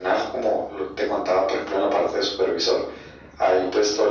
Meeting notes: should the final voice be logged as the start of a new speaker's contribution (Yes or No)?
No